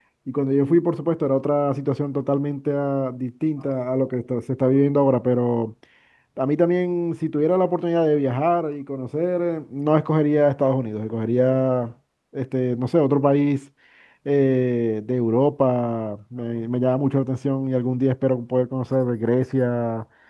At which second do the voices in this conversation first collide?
none

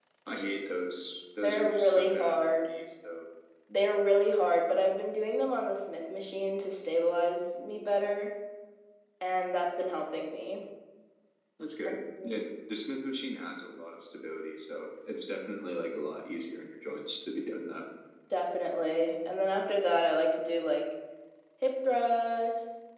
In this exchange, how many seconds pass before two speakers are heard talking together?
1.4 s

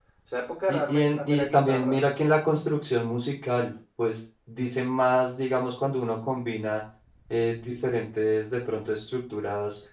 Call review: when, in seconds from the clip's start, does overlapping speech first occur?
0.7 s

